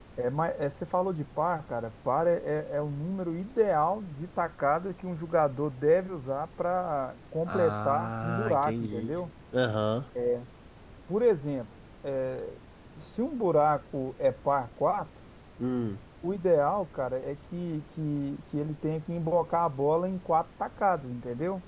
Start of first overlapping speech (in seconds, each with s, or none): 7.5 s